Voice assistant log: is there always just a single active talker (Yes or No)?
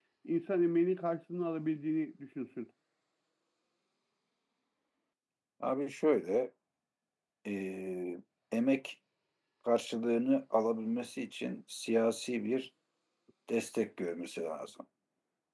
Yes